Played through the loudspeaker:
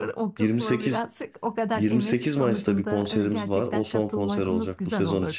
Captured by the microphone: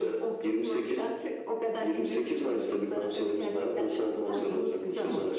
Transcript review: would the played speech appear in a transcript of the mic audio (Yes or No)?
Yes